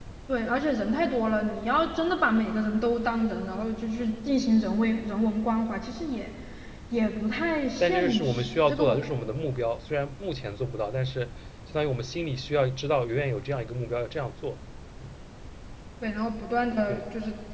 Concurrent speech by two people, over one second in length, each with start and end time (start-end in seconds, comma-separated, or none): 7.8-9.1